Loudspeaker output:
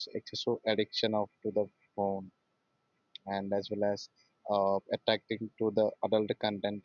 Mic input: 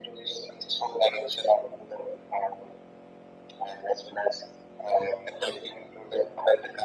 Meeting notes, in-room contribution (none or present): none